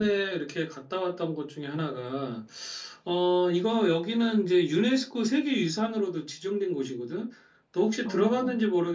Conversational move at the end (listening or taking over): listening